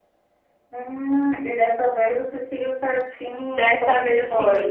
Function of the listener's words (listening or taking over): taking over